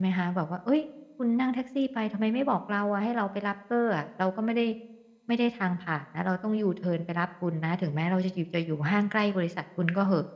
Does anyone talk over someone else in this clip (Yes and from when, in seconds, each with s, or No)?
No